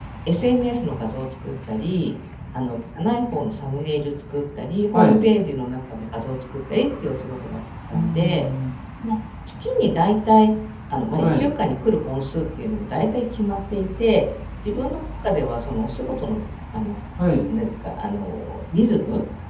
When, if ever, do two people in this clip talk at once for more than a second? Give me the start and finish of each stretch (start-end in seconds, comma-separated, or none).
none